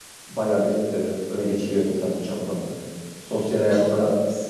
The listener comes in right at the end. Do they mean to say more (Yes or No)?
No